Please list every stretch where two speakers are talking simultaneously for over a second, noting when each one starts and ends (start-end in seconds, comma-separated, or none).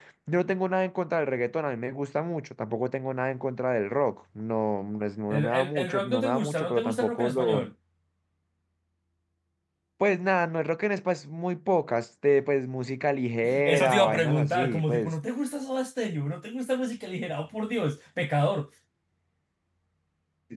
5.3-7.7, 13.6-15.1